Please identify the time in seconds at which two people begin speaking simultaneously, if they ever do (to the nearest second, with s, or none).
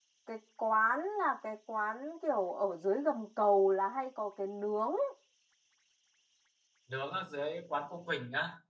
none